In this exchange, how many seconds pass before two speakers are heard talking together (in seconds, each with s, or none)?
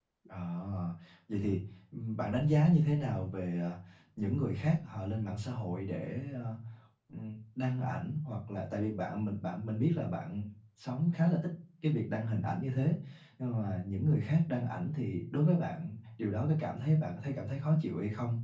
none